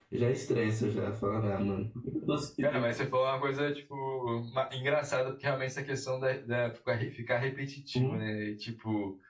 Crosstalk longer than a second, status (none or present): none